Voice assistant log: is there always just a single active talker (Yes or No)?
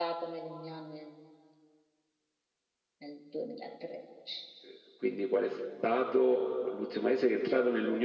Yes